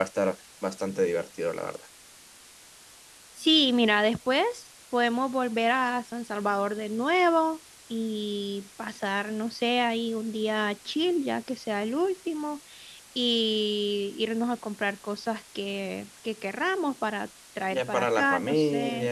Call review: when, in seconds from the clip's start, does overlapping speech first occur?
17.7 s

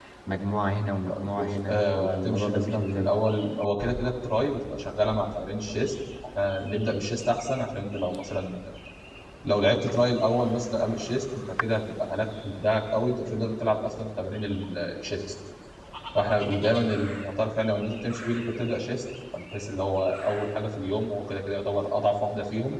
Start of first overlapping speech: 1.2 s

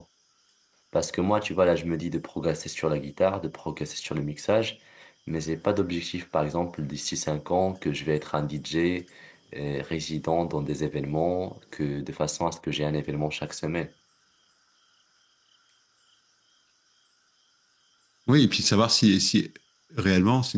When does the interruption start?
none

